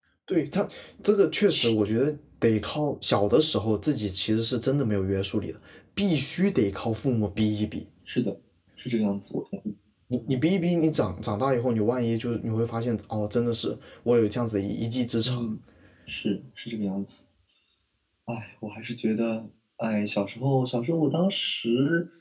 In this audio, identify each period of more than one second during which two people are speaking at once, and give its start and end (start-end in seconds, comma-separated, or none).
none